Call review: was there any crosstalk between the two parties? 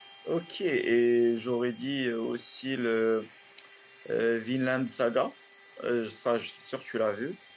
No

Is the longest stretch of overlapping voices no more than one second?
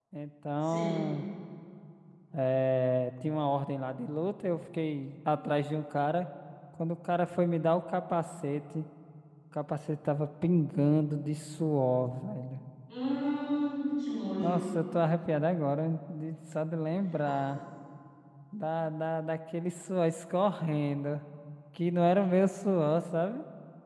Yes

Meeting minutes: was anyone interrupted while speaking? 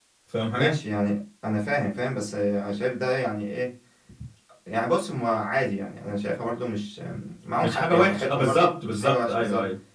Yes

